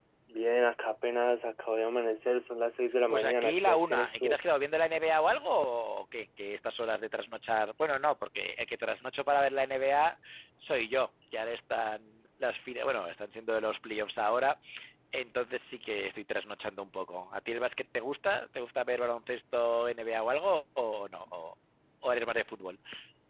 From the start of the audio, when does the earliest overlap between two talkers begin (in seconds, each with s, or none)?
3.1 s